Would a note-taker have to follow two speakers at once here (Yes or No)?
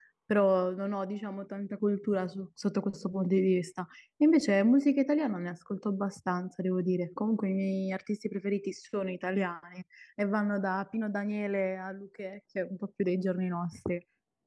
No